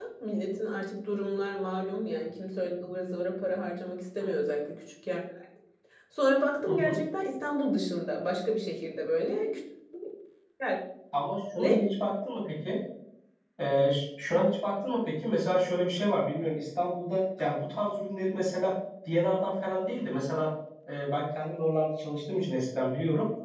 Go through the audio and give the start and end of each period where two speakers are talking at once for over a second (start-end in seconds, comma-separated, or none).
none